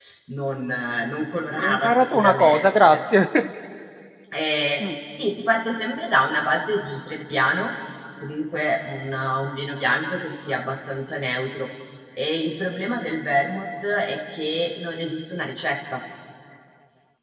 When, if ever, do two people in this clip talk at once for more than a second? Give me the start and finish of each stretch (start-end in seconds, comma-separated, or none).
1.6-3.0